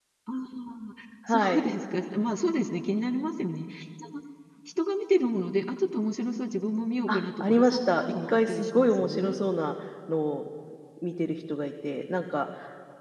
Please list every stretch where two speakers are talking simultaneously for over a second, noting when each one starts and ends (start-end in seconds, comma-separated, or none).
7.1-9.4